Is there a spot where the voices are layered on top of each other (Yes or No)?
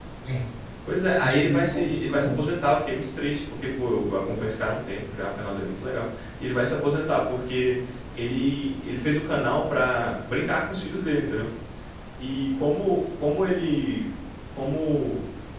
Yes